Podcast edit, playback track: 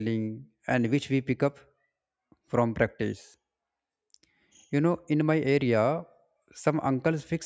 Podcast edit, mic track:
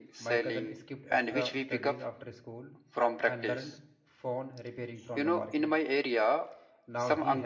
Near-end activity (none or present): present